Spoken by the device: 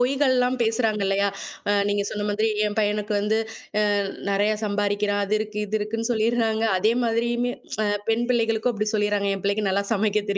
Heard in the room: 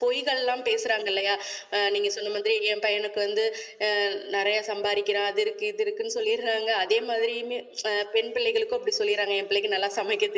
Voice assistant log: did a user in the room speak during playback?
No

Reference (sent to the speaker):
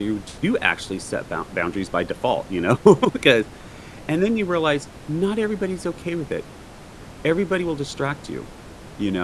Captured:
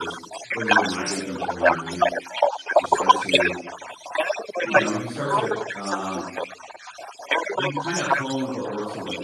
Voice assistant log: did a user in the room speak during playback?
Yes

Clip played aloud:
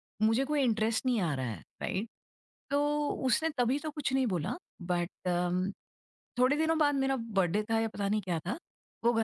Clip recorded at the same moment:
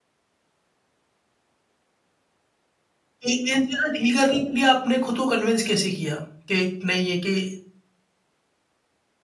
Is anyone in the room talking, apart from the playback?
Yes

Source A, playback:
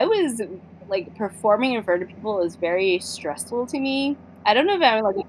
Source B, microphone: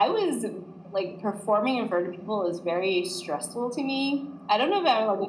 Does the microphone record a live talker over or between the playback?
No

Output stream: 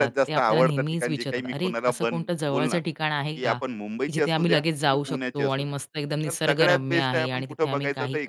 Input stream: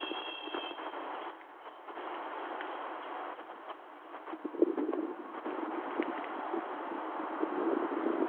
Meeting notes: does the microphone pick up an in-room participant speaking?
No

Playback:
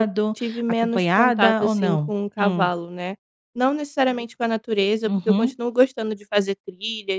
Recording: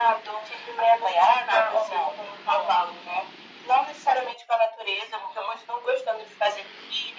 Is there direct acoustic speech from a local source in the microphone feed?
No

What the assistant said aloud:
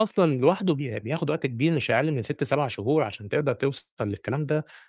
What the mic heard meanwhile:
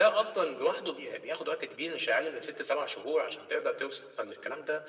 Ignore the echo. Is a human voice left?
No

